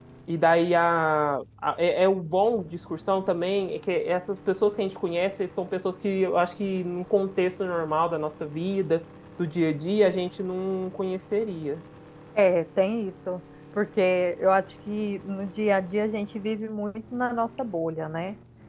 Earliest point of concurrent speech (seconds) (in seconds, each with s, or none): none